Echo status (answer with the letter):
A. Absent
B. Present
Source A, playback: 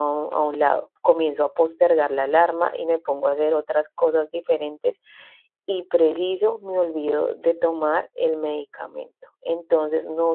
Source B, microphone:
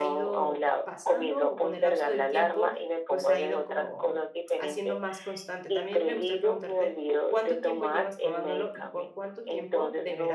B